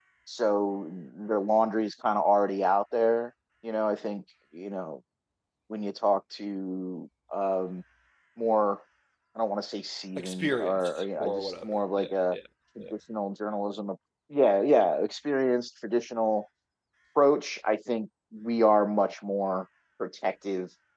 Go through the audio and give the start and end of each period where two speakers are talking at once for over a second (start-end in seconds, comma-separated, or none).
10.2-12.4